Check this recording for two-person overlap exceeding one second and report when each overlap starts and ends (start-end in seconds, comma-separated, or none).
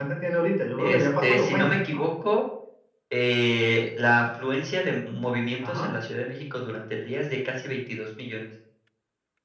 0.8-2.0